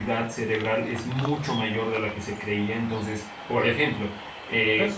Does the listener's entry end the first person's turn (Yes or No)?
Yes